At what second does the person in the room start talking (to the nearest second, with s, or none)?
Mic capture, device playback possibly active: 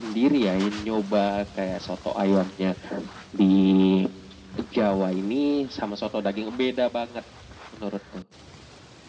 none